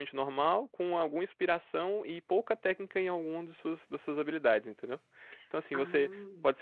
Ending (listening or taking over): listening